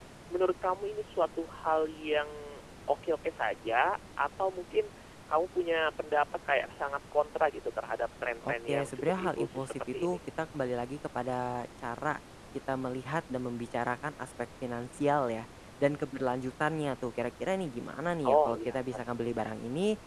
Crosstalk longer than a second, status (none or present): present